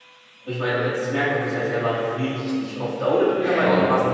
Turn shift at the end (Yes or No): No